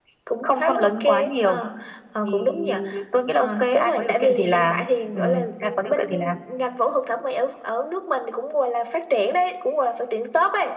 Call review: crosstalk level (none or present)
present